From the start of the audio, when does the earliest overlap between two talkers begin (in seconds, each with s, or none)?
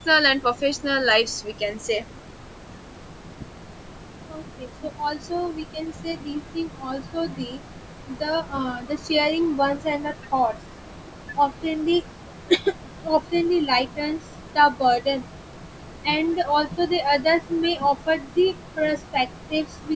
none